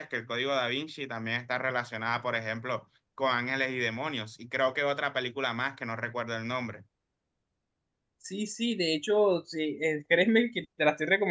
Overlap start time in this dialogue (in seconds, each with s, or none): none